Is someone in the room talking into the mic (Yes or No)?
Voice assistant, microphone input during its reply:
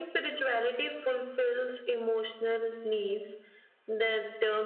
No